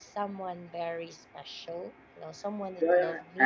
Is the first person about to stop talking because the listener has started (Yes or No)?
Yes